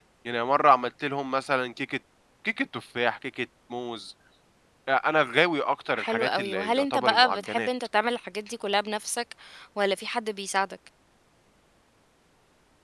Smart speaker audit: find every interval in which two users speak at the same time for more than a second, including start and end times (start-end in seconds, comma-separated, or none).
6.0-7.7